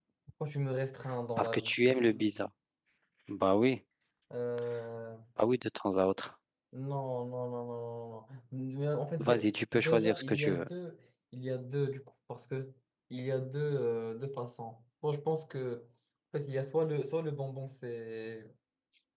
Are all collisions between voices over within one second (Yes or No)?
No